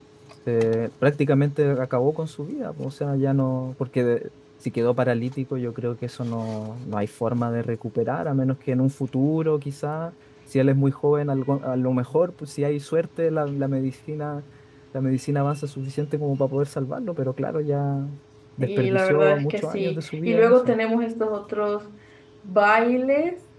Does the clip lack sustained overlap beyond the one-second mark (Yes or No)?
No